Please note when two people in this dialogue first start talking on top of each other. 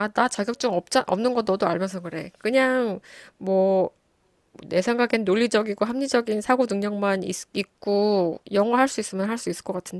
none

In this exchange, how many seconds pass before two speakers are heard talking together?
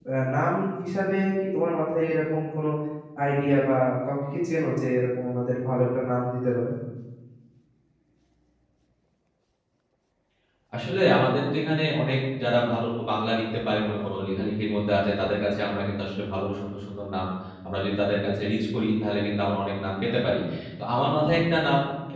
none

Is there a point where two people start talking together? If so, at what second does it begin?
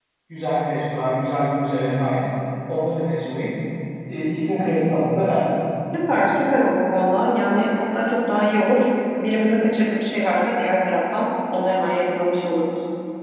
none

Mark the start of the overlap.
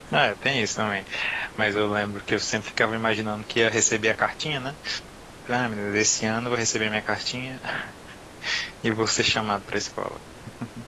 none

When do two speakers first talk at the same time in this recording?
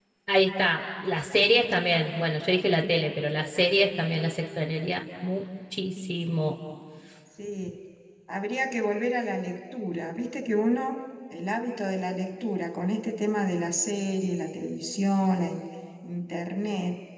none

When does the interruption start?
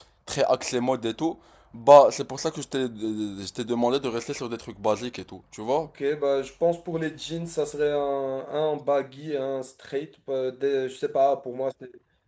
none

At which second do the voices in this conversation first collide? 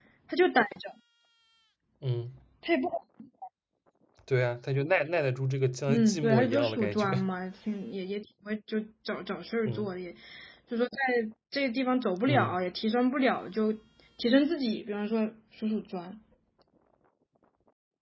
6 s

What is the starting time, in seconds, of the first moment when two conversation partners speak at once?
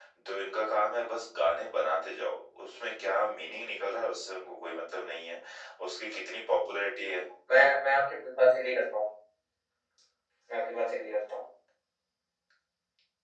none

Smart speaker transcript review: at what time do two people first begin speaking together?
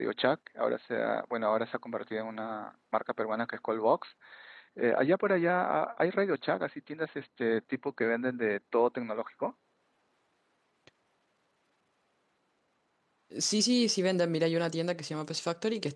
none

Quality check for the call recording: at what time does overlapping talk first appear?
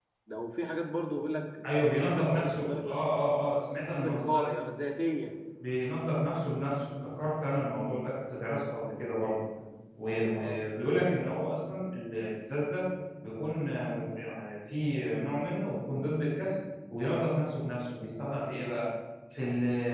2 s

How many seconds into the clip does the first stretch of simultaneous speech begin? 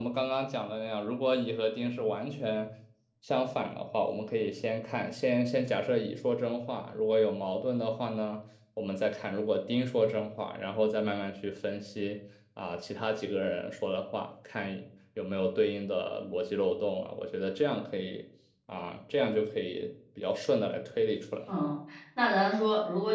none

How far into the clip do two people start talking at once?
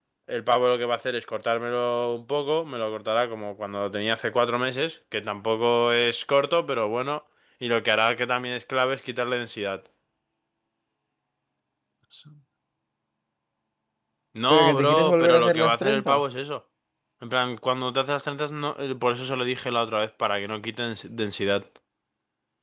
15 s

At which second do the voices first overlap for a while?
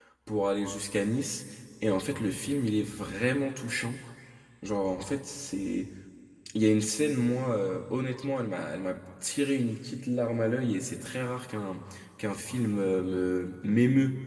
none

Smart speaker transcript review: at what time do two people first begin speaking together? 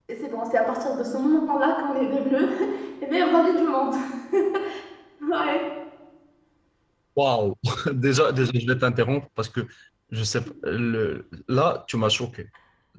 none

